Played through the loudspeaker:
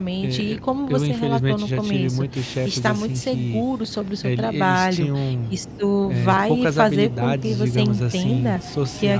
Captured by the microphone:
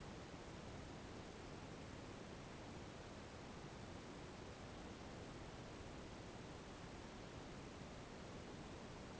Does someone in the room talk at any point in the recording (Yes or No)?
No